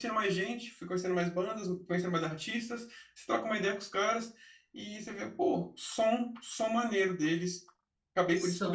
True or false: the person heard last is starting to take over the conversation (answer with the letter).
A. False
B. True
A